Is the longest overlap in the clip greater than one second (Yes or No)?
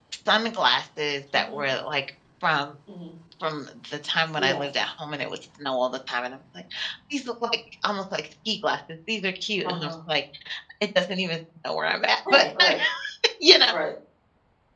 No